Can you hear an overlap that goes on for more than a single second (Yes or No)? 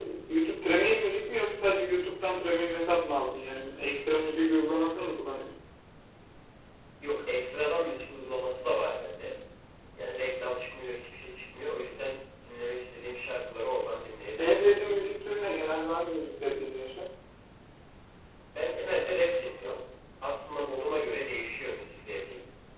No